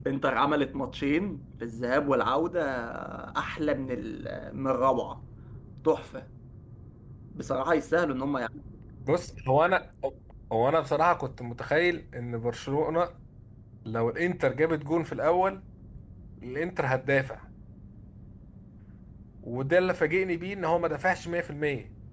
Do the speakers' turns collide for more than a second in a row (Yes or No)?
No